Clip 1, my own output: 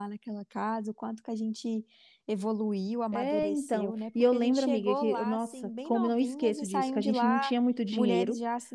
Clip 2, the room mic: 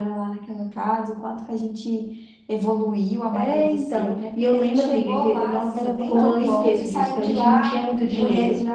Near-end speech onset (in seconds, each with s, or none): 5.7 s